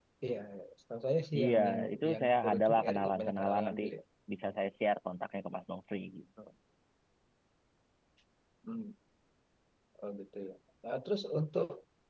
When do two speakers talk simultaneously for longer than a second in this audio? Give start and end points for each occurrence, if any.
1.4-3.8

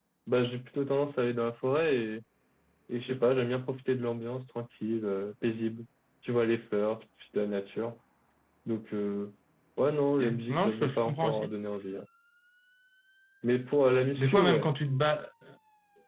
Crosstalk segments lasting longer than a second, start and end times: 10.2-11.5

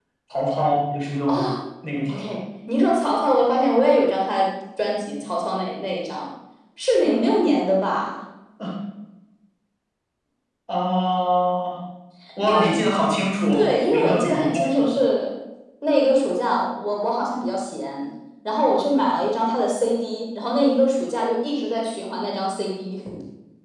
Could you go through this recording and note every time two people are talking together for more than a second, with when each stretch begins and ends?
13.5-14.9

